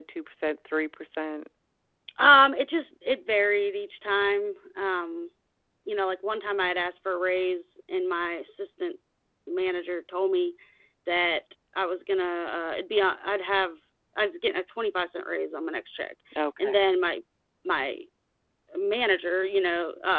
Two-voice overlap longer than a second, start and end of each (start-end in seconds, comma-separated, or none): none